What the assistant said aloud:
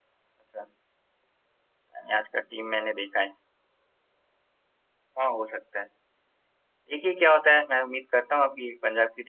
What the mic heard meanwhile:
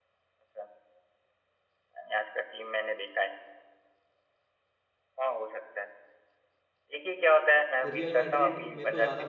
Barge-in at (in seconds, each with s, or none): 7.9 s